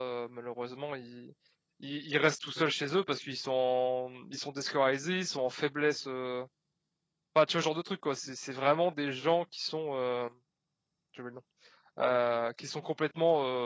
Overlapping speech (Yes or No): No